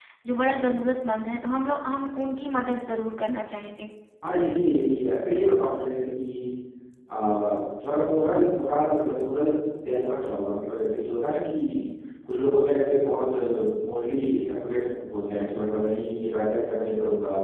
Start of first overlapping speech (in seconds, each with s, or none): none